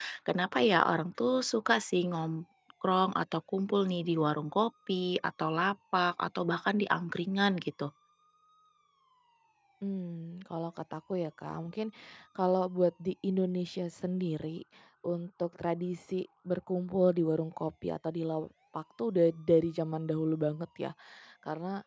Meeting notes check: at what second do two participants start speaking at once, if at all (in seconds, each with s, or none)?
none